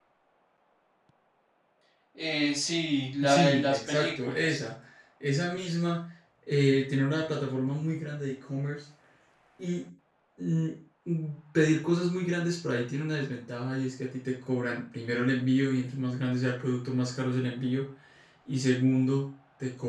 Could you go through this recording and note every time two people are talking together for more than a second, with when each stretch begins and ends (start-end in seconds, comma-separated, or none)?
3.2-4.6